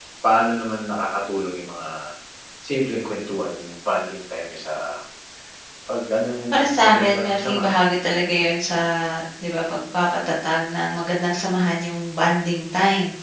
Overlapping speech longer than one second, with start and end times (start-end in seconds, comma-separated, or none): 6.5-7.8